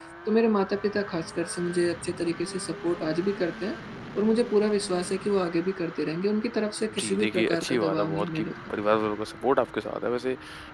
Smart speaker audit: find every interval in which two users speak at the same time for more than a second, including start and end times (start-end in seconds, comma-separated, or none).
7.0-8.7